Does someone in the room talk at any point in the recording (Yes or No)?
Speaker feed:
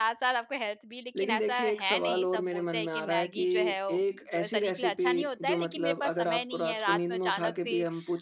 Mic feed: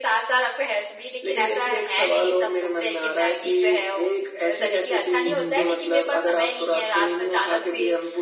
Yes